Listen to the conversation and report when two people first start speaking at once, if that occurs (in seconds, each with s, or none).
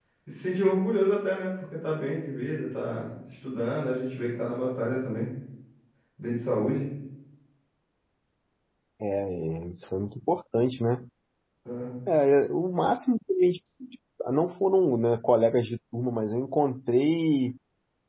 none